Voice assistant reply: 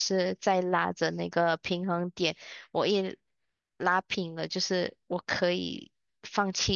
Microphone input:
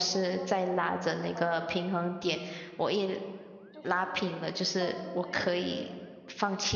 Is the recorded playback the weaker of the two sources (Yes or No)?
No